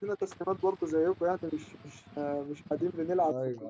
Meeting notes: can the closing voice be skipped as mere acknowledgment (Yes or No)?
No